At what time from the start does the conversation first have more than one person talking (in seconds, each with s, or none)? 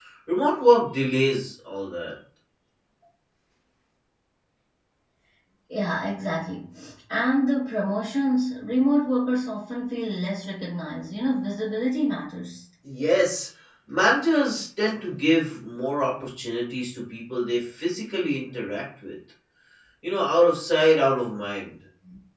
none